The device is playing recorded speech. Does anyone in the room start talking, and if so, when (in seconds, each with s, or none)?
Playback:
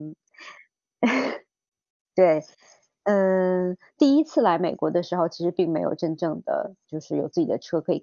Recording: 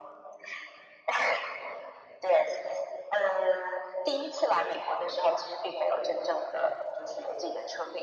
none